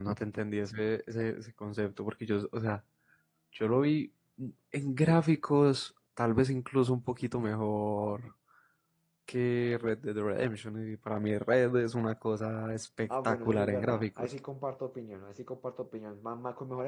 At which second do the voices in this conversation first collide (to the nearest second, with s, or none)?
13 s